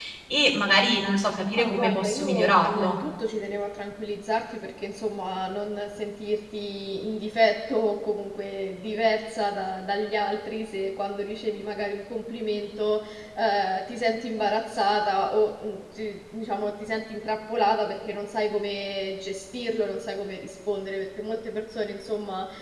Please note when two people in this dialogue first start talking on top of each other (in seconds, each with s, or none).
1.6 s